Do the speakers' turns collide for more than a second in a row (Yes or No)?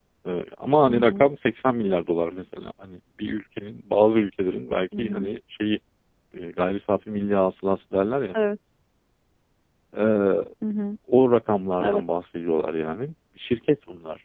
No